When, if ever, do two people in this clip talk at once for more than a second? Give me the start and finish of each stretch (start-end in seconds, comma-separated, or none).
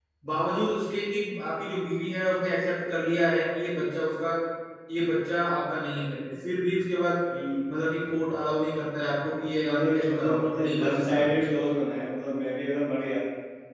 9.6-11.4